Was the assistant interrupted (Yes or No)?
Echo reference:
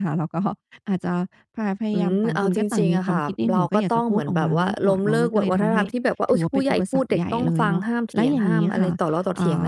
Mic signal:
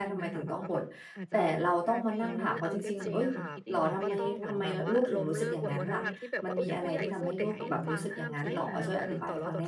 Yes